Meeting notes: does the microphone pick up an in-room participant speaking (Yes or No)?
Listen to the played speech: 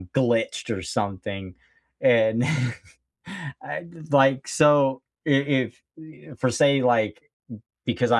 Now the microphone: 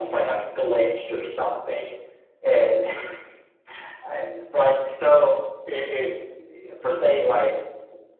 No